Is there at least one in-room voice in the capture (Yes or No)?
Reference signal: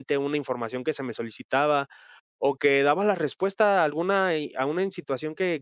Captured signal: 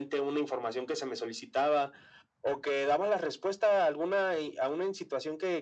No